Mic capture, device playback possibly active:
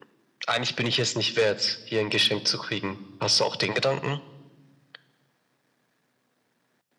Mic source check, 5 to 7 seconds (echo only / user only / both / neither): neither